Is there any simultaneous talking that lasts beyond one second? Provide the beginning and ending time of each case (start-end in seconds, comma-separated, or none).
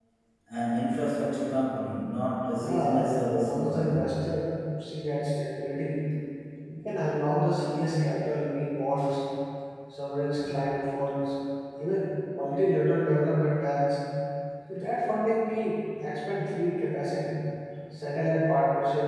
2.6-4.0